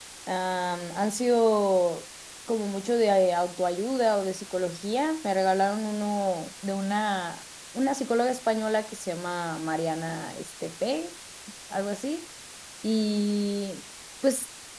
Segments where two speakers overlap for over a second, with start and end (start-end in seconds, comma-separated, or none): none